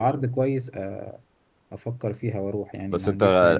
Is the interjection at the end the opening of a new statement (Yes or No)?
Yes